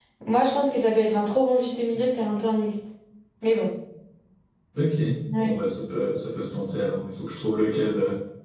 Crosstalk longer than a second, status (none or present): none